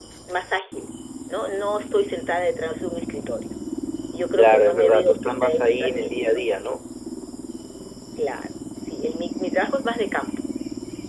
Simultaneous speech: Yes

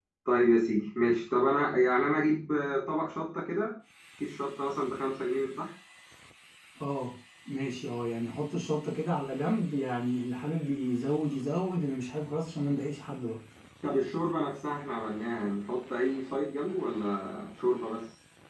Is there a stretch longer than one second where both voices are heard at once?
No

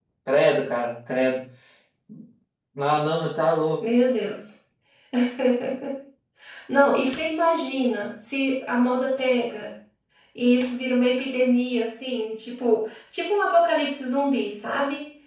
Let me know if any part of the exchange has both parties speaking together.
No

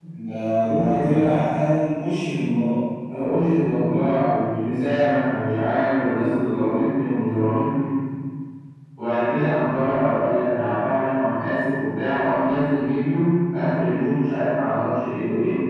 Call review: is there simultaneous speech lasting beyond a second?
No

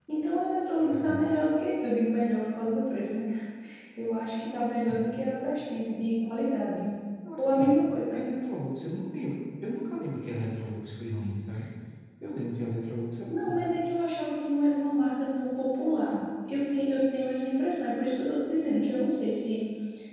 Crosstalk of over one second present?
No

